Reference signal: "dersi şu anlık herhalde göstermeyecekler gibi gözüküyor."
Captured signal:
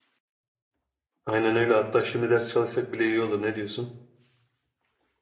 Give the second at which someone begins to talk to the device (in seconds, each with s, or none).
1.3 s